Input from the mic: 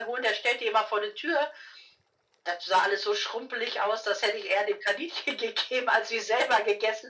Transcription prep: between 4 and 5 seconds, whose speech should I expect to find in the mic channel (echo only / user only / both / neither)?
echo only